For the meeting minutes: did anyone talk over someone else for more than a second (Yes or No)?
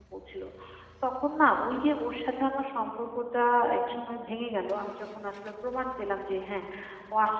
No